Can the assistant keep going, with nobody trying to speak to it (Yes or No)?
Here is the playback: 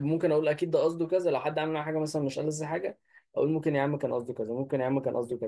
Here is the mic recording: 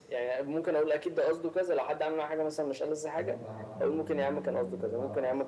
No